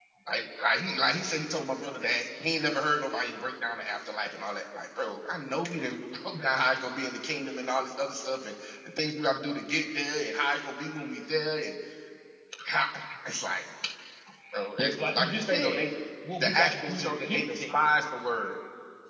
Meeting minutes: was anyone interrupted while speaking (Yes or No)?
Yes